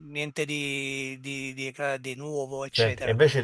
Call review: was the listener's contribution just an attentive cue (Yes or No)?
No